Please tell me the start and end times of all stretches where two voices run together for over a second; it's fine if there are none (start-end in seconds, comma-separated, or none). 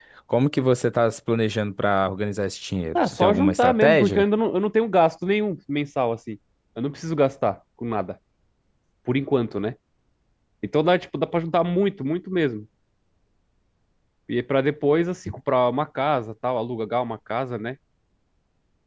3.0-4.2